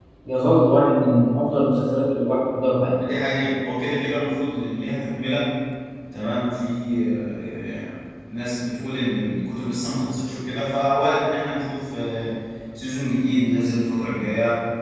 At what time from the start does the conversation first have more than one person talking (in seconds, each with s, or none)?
none